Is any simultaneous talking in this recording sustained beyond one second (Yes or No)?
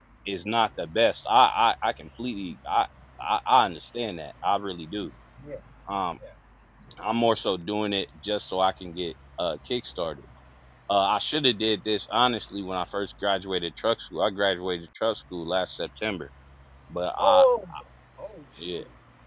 No